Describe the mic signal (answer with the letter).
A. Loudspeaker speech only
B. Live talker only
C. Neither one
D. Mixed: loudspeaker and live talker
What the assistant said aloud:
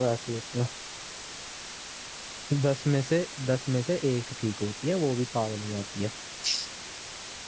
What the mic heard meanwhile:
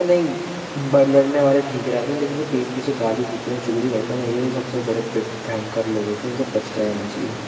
B